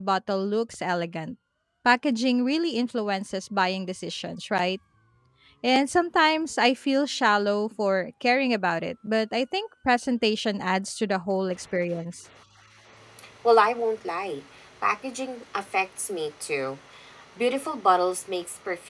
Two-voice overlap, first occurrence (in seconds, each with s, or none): none